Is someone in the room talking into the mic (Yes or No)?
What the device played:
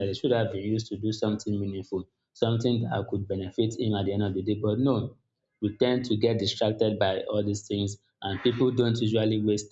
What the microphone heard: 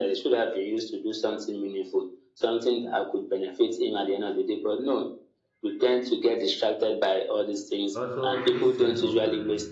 Yes